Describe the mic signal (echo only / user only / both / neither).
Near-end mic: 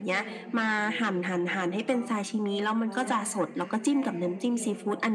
both